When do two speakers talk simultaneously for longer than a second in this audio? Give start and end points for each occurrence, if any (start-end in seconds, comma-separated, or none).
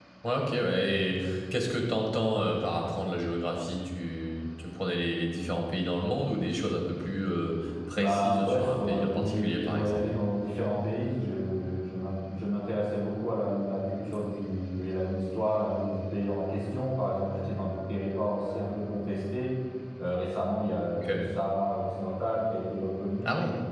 8.0-10.0